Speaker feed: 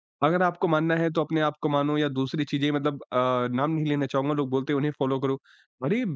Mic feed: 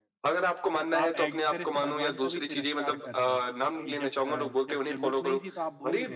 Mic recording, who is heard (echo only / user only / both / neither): both